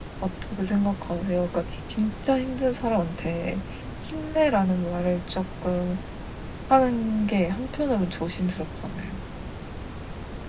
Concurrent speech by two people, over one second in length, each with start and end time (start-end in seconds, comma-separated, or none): none